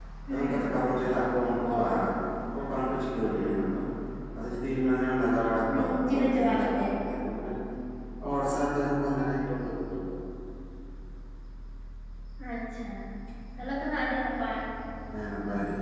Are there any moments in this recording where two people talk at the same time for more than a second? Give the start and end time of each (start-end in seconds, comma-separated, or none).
5.7-7.0